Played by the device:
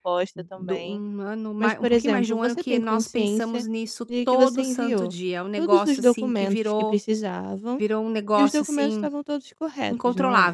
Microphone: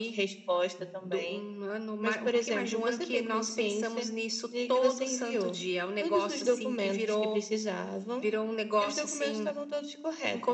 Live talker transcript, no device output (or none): none